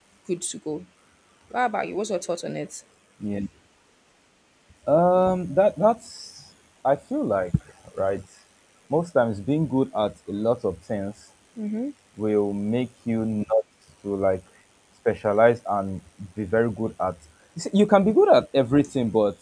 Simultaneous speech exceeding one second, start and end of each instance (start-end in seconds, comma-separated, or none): none